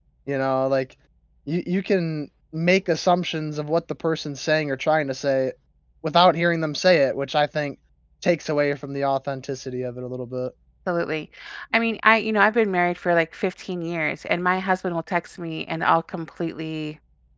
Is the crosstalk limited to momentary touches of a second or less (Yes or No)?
Yes